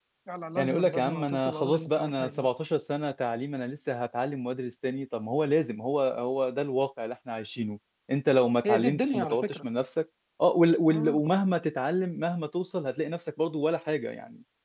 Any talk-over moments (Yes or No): Yes